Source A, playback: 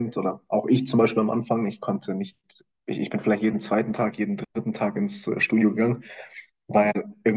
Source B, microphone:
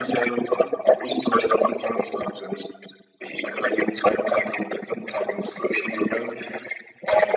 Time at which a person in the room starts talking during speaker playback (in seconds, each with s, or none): none